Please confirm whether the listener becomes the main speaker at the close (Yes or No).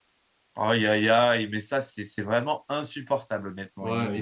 Yes